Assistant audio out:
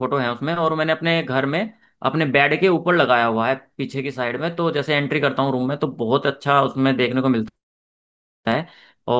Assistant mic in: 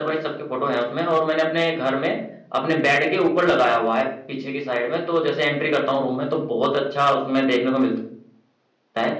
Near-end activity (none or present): none